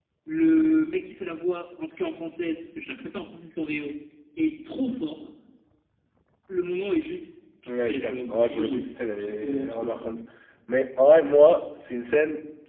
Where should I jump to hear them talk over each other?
8 s

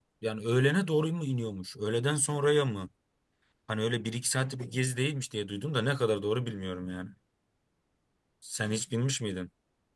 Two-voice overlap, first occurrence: none

